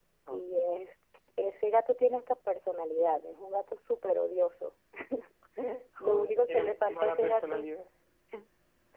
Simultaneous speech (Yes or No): Yes